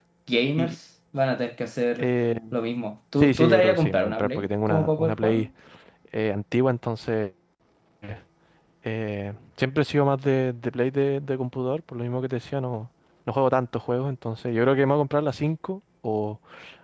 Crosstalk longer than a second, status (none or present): present